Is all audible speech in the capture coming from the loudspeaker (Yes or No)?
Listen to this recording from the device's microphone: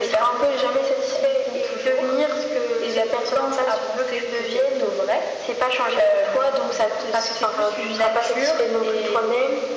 Yes